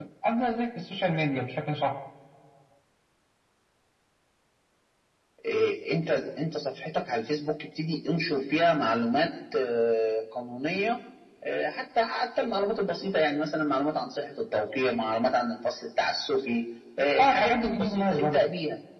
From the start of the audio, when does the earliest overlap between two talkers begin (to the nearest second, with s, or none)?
17 s